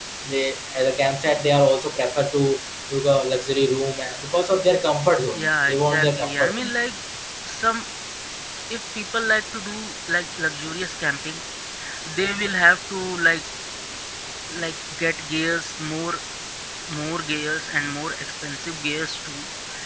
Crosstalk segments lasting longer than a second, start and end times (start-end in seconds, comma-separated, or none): 5.3-6.7